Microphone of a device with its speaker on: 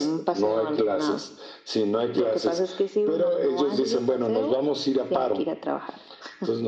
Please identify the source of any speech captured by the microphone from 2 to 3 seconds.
echo only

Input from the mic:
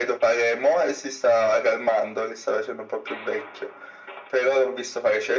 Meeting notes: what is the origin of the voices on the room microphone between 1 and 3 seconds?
echo only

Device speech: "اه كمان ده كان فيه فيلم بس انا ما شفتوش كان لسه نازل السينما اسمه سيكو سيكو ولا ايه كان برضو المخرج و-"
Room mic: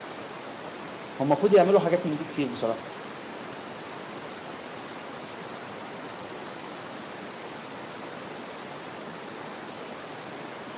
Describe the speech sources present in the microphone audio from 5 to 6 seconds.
neither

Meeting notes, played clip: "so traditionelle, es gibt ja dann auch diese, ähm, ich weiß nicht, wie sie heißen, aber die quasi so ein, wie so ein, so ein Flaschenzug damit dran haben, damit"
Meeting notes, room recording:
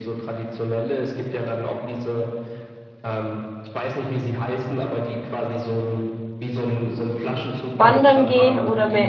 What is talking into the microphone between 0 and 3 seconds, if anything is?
echo only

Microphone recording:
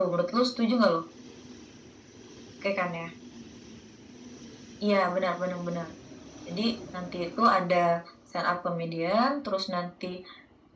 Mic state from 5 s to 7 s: echo only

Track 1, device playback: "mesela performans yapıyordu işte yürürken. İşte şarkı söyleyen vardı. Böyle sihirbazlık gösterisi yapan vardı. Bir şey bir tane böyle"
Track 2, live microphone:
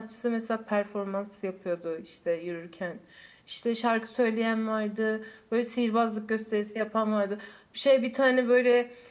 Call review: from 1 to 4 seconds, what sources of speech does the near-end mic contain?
echo only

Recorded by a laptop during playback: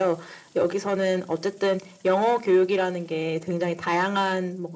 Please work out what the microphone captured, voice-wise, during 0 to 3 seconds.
echo only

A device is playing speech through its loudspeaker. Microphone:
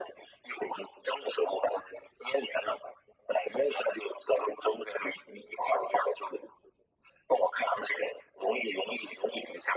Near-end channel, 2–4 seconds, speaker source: echo only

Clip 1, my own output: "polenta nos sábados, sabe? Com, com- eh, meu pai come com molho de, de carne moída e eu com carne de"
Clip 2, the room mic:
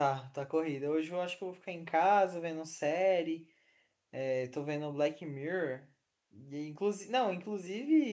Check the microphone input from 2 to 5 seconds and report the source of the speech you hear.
user only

